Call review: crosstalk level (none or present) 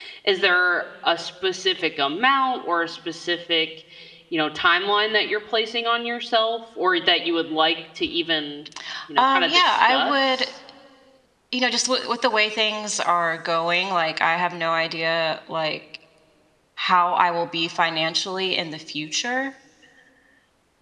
present